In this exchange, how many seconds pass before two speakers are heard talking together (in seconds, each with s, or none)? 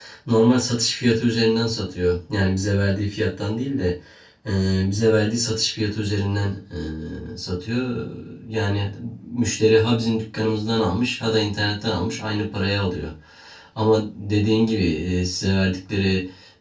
none